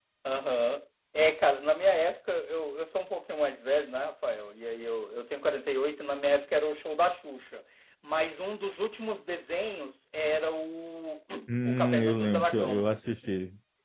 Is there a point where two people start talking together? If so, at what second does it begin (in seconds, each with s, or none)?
11.7 s